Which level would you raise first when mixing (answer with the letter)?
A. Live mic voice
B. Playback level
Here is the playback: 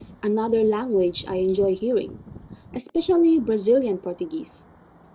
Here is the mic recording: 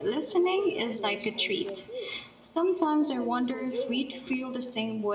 B